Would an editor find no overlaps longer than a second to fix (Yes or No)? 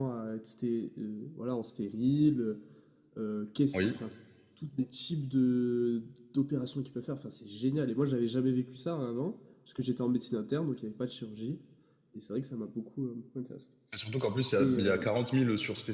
Yes